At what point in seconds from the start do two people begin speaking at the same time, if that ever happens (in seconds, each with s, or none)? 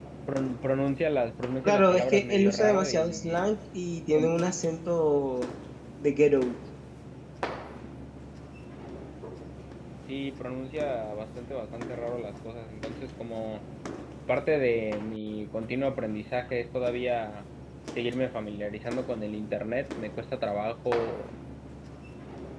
1.6 s